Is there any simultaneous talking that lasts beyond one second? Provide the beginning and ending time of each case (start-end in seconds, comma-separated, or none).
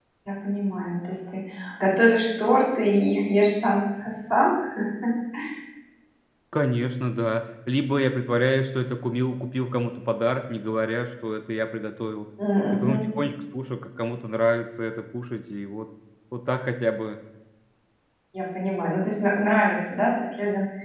none